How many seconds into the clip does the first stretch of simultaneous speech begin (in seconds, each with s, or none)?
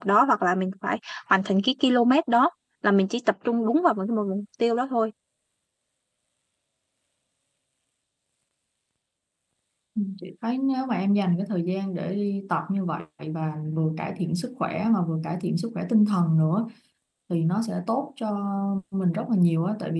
none